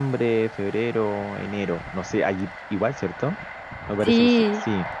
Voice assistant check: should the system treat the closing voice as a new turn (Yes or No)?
Yes